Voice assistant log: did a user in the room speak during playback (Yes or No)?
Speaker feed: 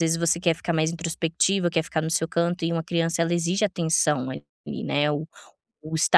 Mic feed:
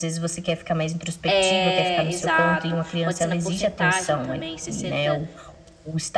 Yes